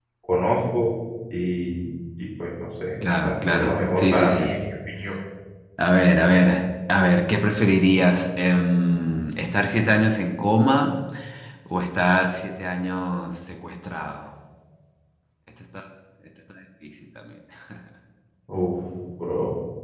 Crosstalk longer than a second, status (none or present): present